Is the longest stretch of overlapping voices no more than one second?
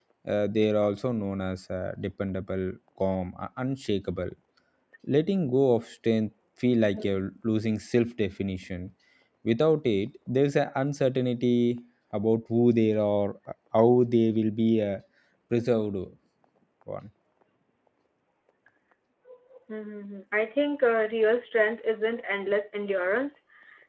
Yes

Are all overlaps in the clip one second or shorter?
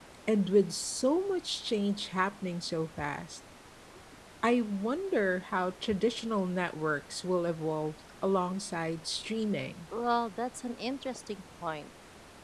Yes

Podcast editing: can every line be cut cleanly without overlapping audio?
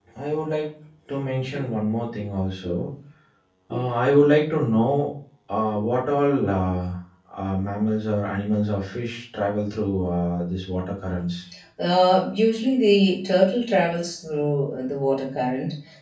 Yes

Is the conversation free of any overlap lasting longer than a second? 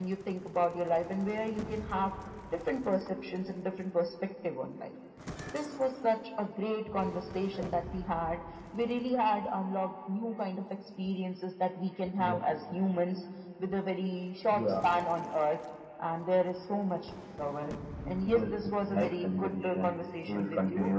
No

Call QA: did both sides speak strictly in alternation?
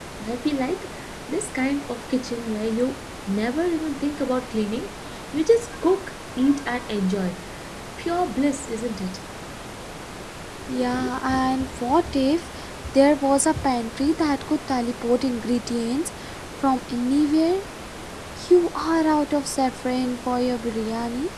Yes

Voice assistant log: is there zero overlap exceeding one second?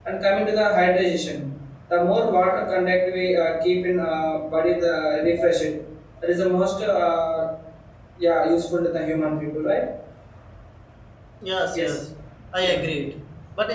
Yes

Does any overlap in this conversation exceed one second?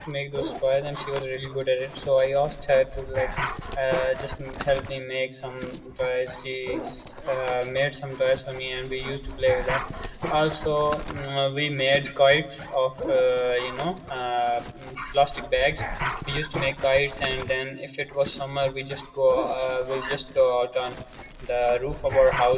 No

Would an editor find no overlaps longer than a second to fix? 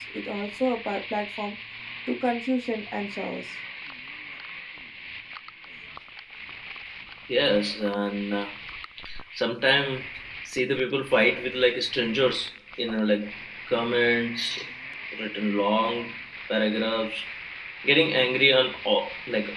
Yes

